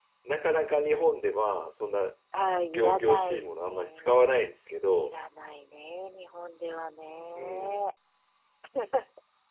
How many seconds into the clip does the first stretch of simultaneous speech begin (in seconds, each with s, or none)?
2.7 s